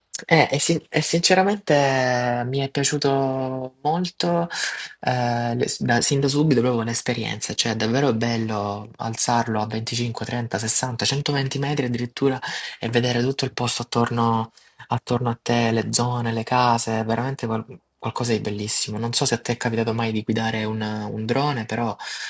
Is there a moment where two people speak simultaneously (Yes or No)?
No